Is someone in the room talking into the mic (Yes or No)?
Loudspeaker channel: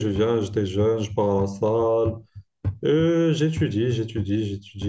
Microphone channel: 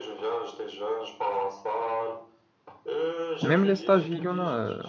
Yes